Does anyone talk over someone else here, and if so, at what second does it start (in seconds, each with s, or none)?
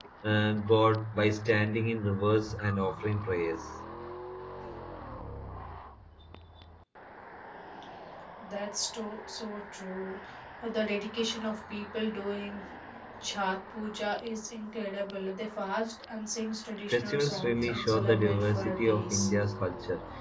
16.9 s